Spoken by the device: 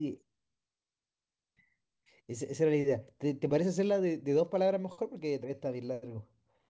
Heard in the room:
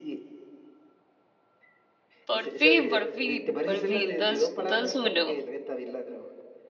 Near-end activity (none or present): present